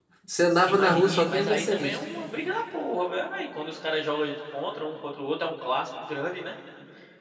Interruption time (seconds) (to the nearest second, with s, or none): 1 s